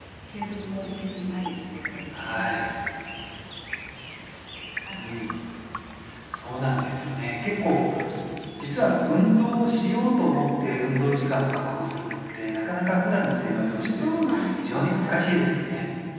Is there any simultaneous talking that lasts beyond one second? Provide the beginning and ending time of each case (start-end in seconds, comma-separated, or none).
13.4-15.2